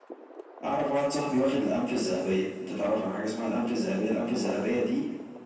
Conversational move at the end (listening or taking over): listening